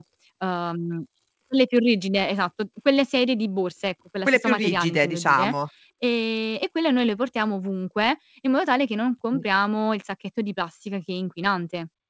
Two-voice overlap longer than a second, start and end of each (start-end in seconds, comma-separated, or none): 4.3-5.5